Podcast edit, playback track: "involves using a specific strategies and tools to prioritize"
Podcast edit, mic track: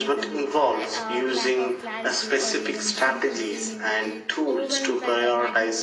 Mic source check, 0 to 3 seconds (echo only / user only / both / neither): both